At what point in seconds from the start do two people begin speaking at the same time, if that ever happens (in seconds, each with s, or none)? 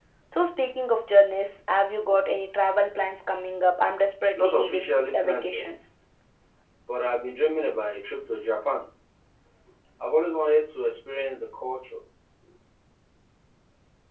4.3 s